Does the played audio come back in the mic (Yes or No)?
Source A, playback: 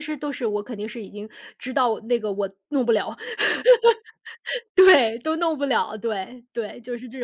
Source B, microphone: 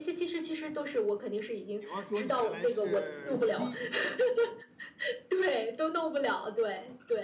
Yes